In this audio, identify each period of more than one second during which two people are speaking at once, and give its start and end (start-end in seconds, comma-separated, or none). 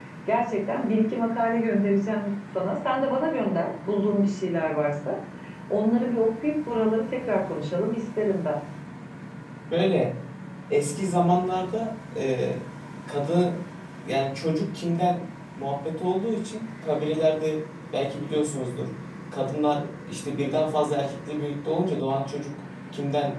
none